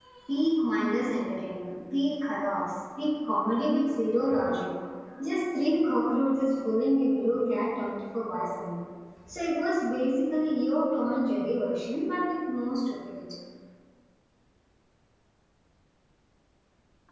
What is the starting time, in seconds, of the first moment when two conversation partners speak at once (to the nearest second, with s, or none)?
none